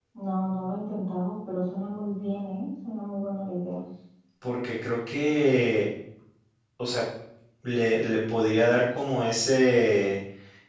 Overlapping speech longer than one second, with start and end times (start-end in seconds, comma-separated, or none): none